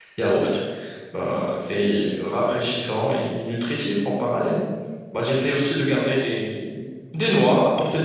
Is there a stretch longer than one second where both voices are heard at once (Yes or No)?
No